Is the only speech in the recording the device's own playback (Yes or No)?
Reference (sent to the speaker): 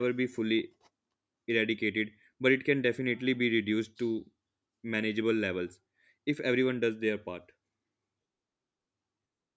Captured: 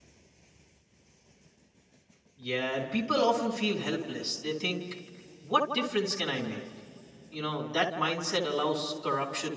No